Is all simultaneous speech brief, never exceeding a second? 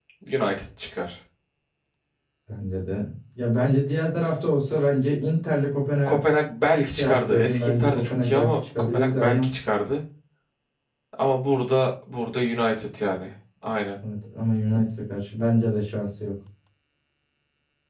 No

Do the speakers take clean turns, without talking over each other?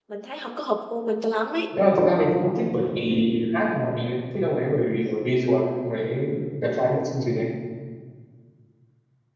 Yes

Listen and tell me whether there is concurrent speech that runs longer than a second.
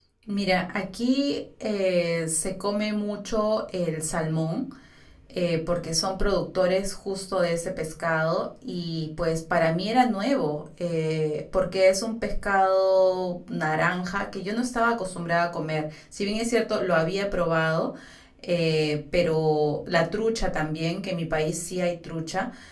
No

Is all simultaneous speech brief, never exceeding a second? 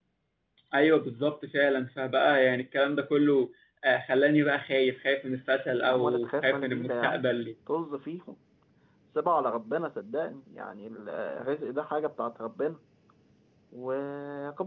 No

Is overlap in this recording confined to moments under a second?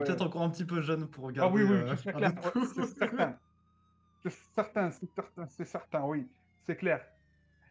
No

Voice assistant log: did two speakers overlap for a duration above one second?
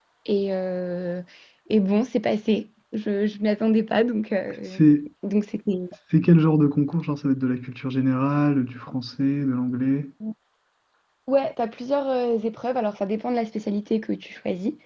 No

